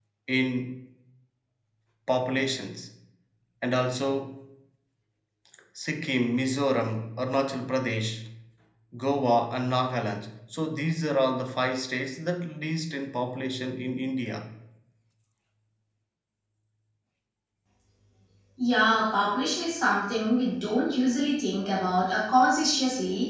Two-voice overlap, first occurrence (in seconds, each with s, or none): none